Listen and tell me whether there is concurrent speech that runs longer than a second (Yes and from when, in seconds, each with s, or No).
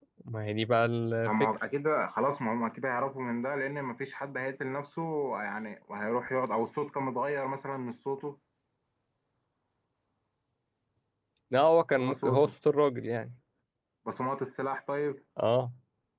No